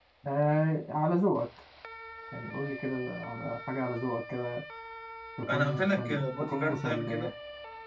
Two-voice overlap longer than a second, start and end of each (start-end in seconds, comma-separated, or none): 5.5-7.3